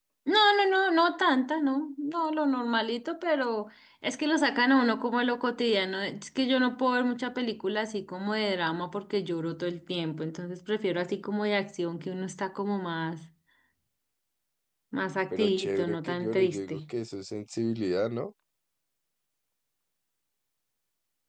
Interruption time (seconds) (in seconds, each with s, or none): 15.3 s